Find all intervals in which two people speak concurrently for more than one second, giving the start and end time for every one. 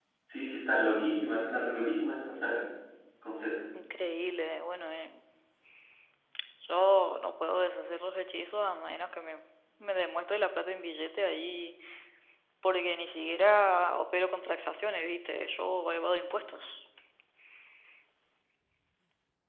none

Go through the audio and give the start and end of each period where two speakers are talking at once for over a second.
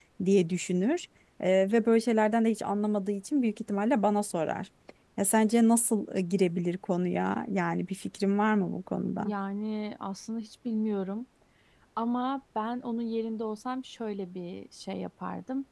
none

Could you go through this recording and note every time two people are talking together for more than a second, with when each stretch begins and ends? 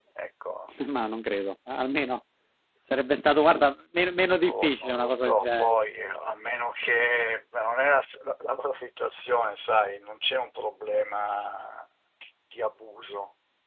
4.4-5.7

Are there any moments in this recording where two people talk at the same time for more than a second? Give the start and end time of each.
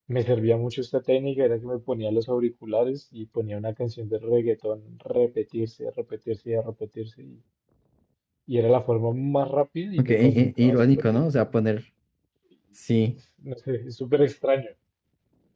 10.0-11.2

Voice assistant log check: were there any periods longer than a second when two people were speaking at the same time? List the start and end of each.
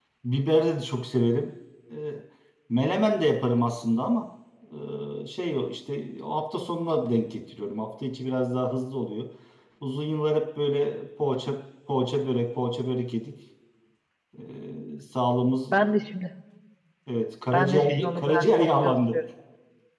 17.5-19.2

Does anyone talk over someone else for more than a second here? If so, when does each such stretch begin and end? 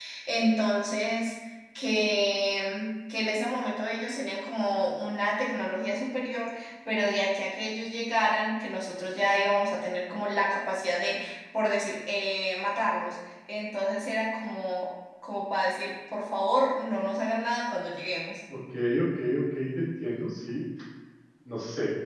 none

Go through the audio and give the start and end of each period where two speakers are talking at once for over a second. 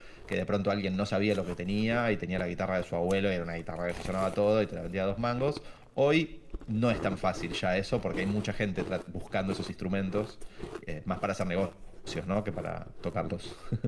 none

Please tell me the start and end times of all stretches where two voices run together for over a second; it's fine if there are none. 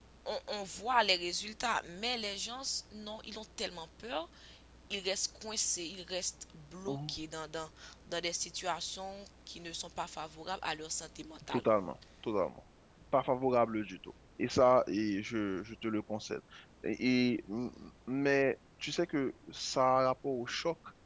none

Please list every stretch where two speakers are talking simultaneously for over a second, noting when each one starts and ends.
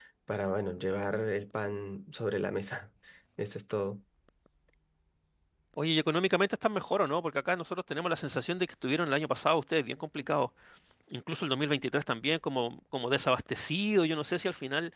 none

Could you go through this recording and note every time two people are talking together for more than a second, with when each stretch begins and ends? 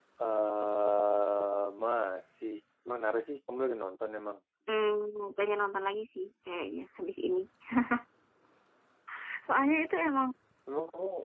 none

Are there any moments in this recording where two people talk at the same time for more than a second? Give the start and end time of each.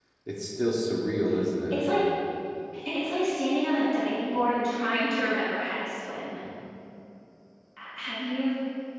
none

